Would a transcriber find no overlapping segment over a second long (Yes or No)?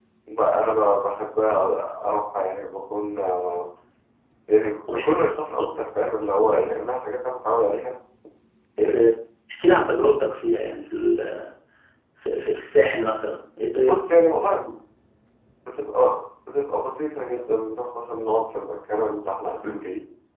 Yes